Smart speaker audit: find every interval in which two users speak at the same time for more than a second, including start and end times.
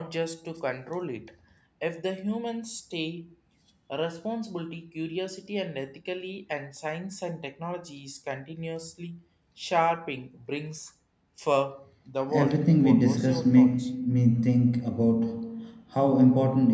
12.3-13.7

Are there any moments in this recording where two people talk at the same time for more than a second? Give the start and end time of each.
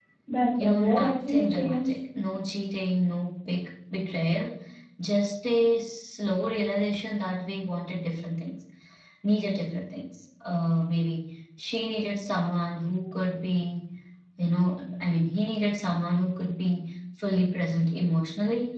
0.6-2.0

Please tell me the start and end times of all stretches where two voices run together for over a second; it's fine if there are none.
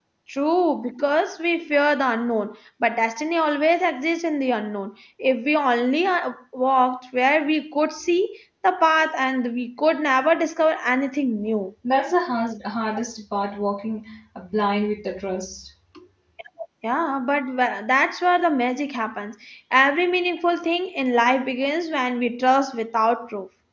none

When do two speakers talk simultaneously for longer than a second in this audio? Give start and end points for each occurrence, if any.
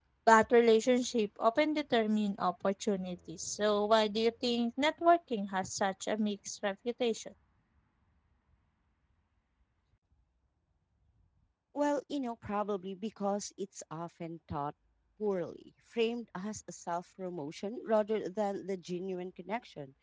none

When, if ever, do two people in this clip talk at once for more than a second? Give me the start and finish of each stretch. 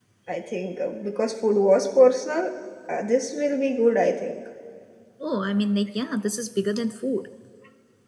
none

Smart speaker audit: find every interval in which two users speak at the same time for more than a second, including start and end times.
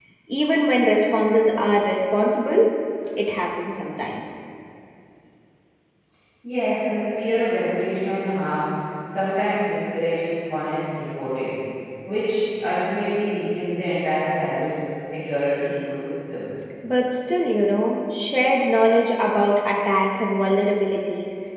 none

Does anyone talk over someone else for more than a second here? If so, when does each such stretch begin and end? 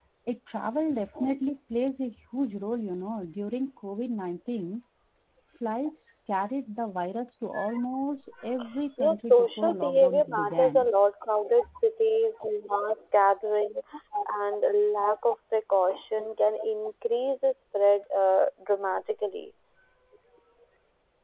9.0-10.9

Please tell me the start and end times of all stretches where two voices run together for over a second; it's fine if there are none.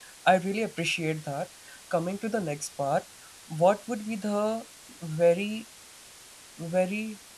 none

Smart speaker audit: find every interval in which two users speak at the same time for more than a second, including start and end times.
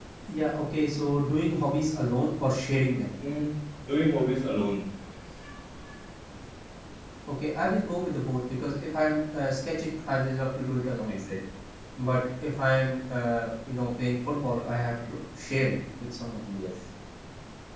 none

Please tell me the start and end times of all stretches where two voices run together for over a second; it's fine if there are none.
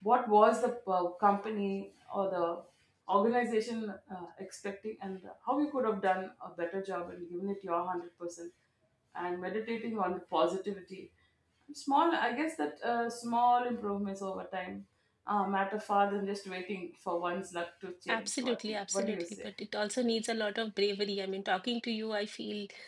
18.1-19.5

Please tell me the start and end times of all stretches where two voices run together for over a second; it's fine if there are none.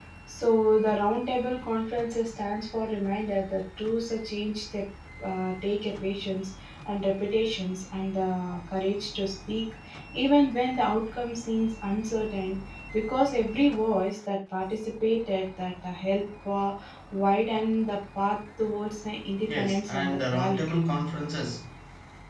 19.5-20.8

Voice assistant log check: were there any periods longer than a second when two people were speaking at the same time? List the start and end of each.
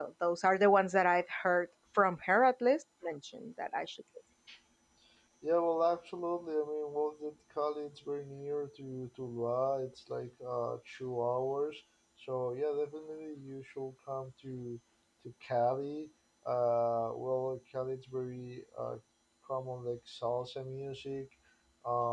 none

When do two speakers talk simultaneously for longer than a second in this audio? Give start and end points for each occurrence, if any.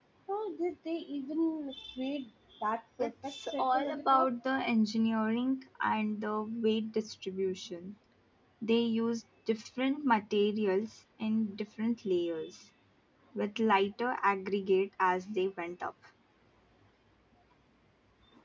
3.0-4.3

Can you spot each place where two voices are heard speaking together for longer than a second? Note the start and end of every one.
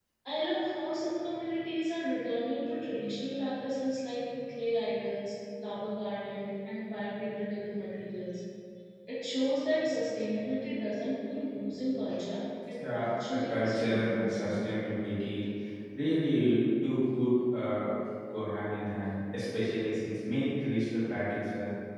12.9-14.5

